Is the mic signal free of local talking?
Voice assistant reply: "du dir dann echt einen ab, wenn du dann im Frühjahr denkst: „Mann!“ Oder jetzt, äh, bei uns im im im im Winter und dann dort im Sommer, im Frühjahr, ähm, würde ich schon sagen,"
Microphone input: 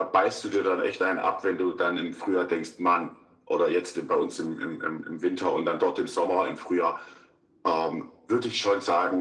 Yes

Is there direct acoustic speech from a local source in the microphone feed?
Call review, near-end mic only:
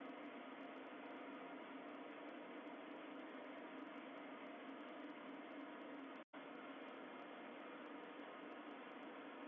No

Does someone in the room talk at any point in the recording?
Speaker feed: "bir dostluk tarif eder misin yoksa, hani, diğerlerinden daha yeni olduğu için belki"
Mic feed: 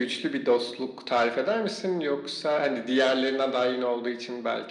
No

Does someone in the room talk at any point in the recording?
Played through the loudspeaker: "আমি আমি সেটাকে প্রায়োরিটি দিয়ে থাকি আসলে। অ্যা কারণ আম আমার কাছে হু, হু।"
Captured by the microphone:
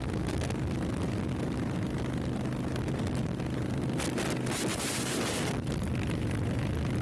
No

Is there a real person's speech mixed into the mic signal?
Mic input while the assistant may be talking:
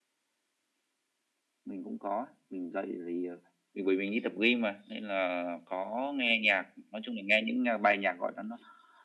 No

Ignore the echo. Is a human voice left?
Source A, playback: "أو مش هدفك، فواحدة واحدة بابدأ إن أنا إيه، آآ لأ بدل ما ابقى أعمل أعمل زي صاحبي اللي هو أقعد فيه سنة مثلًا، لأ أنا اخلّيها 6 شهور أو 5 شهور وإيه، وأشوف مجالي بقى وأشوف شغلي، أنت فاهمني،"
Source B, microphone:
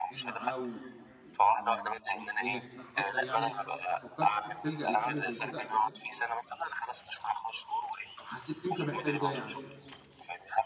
Yes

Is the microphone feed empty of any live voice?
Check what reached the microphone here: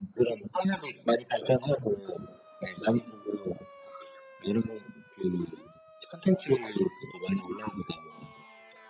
Yes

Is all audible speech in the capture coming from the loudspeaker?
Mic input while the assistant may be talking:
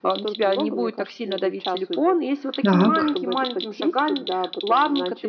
No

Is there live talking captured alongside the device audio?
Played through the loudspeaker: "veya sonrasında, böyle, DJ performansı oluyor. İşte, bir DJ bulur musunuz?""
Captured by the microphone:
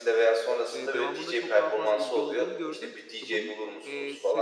Yes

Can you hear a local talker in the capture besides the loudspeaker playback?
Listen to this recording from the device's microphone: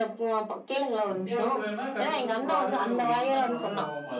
Yes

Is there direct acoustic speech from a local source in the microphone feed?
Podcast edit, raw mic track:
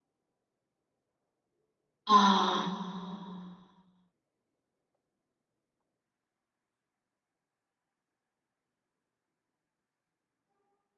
Yes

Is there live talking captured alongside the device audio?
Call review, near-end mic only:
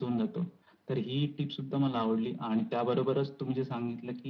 No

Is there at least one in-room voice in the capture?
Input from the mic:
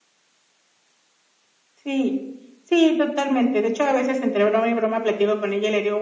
No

